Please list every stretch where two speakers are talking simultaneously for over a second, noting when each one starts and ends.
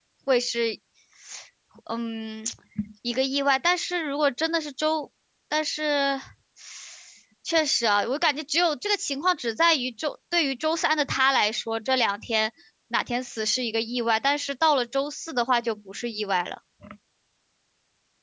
none

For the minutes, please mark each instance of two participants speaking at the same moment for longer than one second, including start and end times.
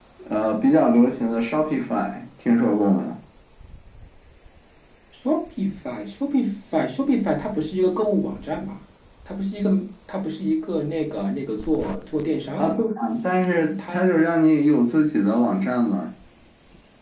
none

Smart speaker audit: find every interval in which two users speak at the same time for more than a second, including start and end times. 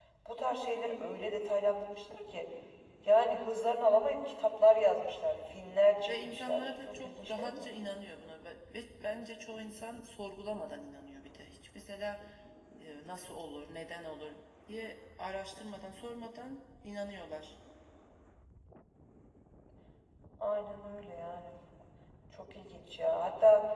6.1-7.7

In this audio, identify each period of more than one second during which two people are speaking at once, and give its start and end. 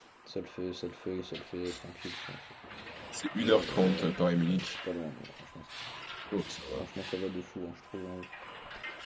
3.4-4.8

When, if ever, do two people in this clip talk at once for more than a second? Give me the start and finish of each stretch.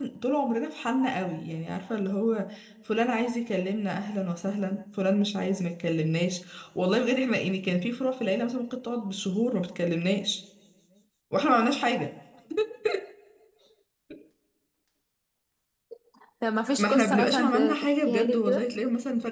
16.8-18.7

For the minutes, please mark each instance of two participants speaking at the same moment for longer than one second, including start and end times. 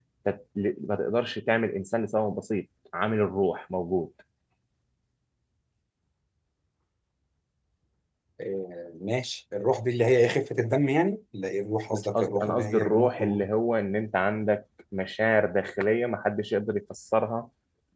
11.9-13.4

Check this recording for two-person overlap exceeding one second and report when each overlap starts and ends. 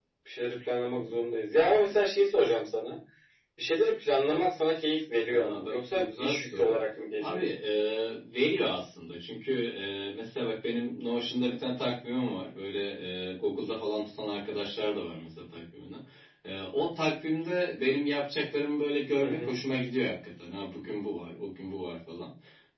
5.3-6.8

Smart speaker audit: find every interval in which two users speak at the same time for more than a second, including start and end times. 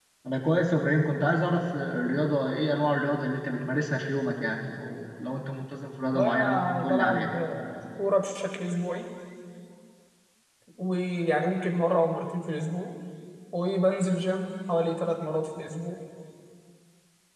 6.1-7.3

